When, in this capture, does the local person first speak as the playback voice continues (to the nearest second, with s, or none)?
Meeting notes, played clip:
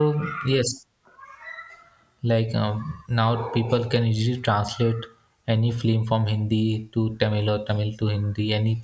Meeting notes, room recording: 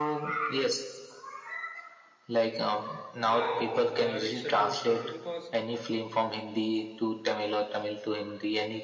3 s